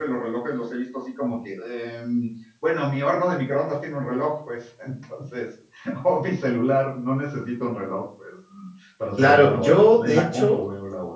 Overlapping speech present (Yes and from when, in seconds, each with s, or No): Yes, from 9.2 s